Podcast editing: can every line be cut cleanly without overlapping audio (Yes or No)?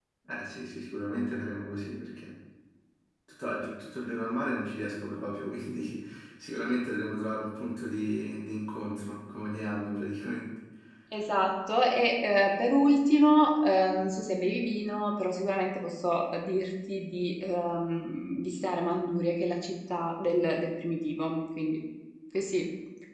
Yes